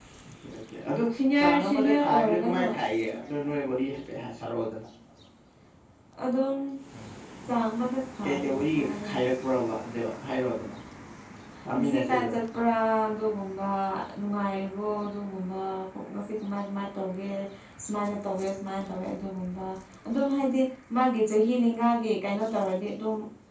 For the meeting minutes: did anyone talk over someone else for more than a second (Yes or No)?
Yes